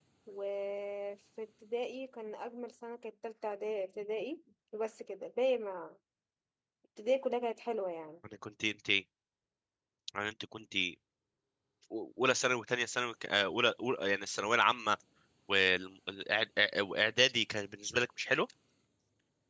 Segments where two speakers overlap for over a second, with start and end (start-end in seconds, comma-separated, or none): none